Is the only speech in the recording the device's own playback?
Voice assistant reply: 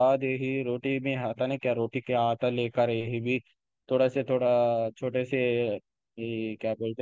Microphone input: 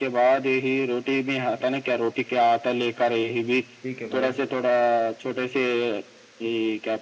No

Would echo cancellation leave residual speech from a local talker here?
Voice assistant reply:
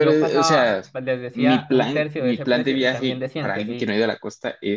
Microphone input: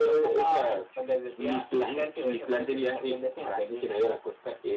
No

